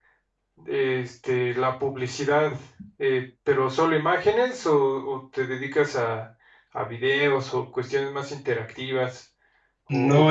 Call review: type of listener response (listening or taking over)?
taking over